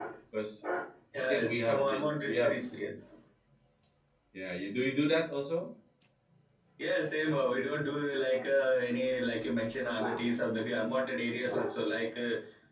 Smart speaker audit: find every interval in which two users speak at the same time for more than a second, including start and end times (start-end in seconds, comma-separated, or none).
1.3-2.6